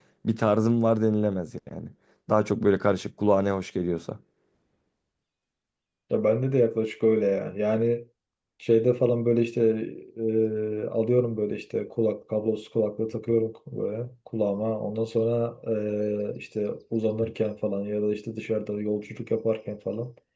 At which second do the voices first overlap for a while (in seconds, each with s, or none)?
none